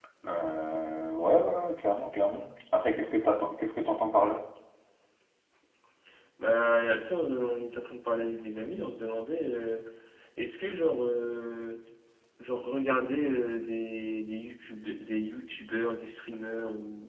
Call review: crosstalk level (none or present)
none